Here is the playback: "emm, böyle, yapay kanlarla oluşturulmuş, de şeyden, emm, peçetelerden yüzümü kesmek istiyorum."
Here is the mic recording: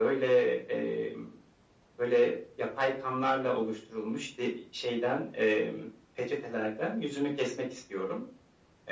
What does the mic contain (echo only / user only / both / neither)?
echo only